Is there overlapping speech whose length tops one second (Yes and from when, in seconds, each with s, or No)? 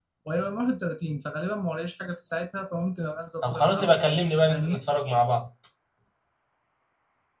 Yes, from 3.4 s